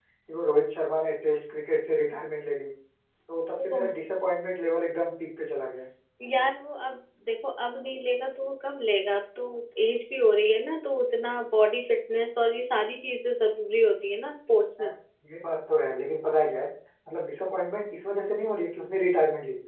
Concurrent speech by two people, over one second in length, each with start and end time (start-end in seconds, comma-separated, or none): none